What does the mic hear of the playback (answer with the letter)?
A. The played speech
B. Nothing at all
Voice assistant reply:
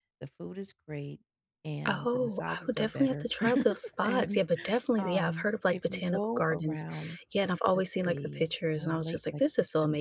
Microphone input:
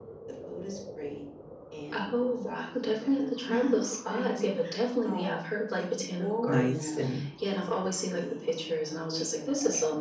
A